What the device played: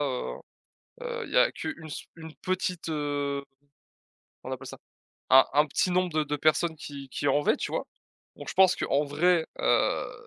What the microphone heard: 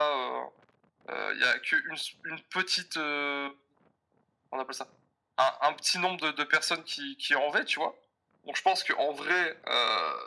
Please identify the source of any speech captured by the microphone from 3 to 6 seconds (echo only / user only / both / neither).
echo only